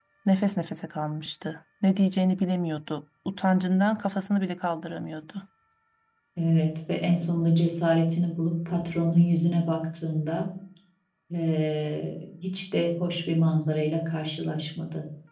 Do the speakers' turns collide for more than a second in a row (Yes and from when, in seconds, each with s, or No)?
No